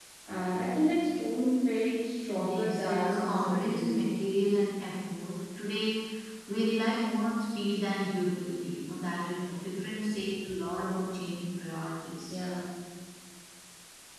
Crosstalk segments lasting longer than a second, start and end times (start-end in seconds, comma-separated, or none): 2.5-4.1